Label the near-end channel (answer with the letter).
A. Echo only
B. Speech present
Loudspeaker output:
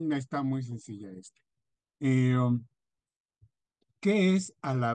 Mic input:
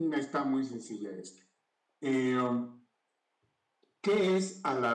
A